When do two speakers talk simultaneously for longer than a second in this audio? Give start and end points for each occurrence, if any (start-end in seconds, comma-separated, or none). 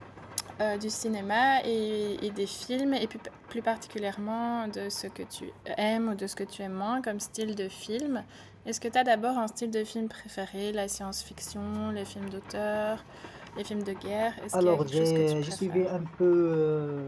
14.5-15.8